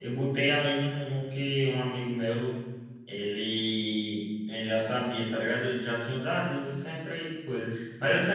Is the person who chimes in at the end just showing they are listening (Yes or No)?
Yes